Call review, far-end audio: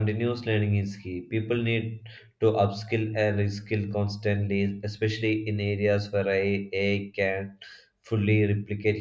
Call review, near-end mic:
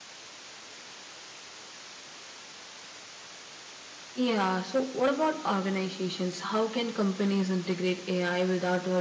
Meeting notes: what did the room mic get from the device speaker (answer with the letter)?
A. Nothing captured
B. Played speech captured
A